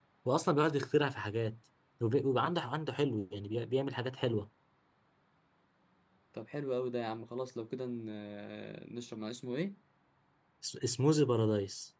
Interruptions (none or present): none